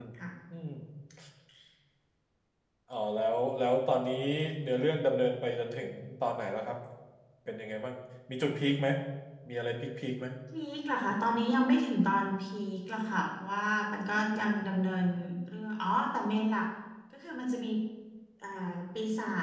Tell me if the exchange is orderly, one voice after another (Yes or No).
Yes